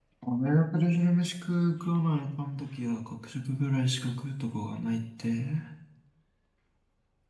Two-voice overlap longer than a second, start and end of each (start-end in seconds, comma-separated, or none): none